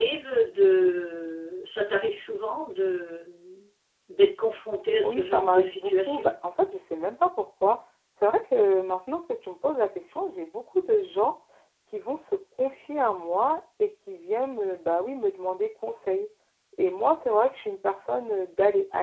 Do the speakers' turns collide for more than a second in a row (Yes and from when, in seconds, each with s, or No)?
Yes, from 5.0 s